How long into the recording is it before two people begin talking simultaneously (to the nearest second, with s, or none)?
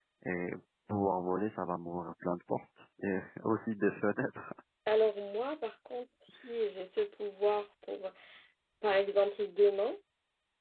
none